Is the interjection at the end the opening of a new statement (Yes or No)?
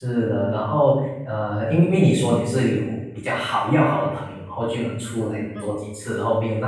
No